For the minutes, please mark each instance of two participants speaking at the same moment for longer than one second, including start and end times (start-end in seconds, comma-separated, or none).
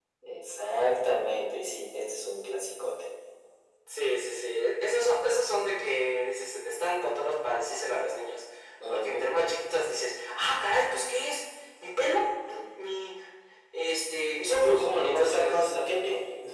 14.5-15.7